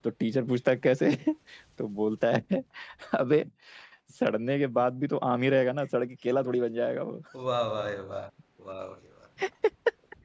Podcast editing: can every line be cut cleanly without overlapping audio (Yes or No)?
Yes